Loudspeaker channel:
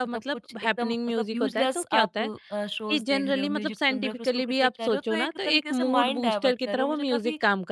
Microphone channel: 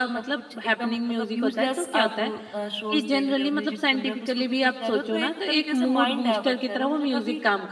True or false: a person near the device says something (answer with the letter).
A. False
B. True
A